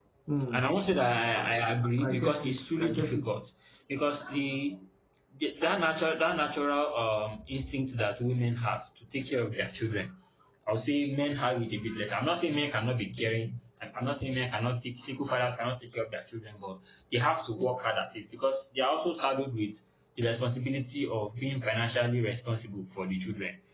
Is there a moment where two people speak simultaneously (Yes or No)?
Yes